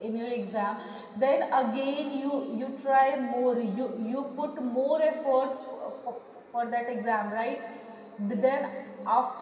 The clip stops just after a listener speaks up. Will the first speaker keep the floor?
Yes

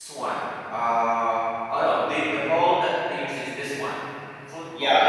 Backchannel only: No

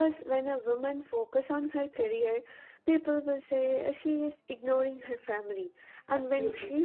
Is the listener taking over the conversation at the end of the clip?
No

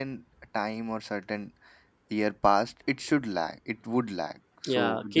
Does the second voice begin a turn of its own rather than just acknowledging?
Yes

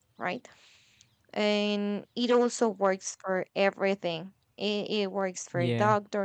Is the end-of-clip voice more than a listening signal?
No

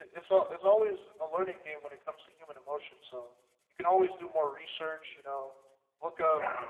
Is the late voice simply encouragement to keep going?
Yes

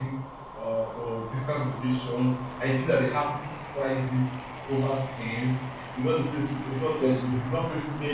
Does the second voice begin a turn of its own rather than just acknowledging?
No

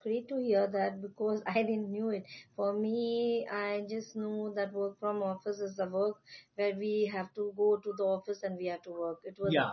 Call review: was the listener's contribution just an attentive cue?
No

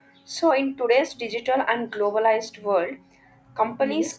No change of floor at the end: Yes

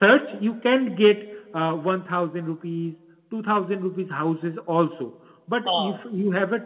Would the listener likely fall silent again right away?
Yes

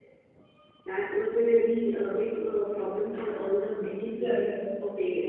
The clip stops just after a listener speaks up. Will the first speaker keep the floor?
No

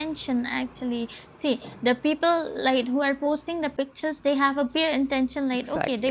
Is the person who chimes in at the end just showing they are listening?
Yes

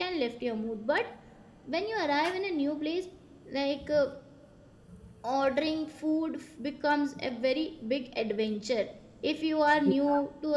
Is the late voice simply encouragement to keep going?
Yes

